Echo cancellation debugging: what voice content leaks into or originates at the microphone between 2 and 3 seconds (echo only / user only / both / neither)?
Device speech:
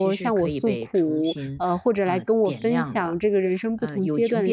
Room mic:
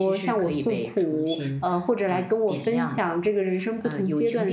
echo only